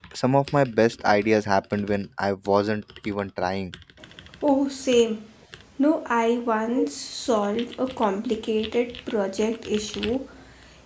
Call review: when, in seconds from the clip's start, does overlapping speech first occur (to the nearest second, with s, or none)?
none